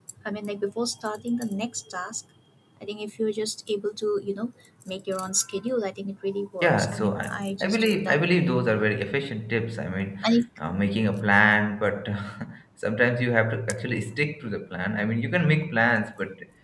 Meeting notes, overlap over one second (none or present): present